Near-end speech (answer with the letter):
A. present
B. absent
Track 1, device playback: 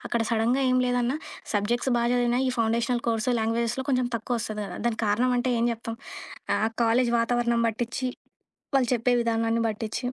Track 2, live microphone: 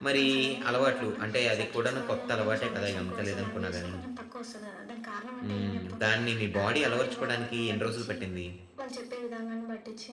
A